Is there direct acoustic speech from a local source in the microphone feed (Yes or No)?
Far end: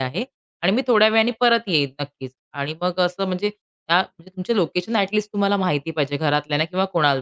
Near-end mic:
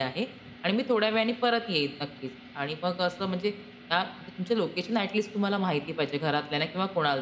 No